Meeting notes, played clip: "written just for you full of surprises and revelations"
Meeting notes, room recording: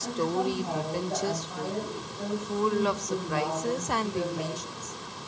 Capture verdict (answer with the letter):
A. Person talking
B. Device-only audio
A